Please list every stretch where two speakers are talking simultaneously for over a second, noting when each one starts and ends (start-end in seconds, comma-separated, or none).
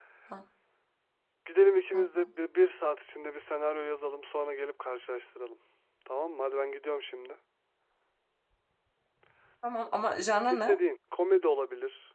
none